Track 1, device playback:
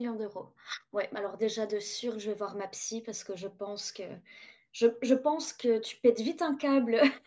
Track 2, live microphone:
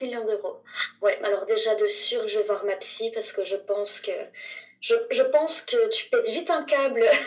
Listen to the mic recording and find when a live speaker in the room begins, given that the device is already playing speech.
none

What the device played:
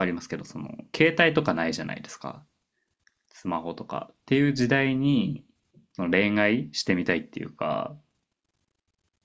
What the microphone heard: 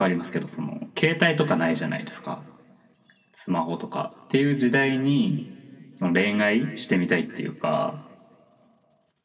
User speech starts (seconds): none

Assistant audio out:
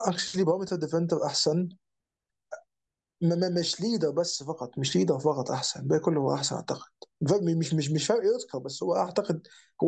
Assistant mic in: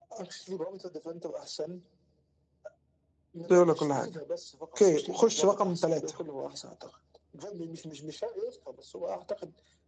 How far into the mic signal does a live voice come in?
3 s

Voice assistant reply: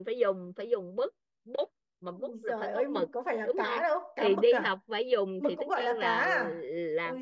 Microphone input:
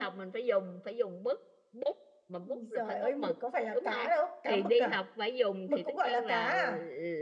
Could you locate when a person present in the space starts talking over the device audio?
none

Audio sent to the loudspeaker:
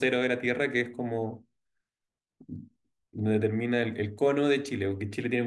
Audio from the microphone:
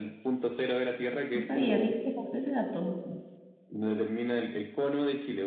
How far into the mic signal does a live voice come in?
1 s

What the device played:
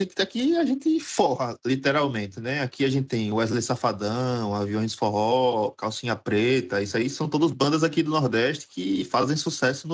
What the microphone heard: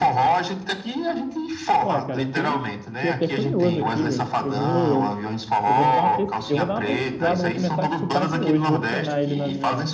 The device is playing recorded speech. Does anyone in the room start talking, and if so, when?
2 s

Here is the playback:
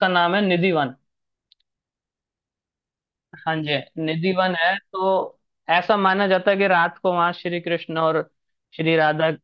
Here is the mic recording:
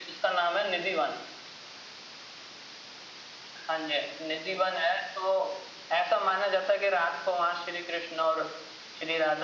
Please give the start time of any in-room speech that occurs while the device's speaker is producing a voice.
none

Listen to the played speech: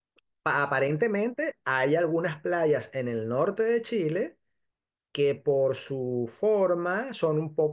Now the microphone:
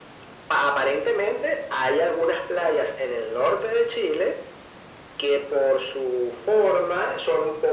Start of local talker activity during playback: none

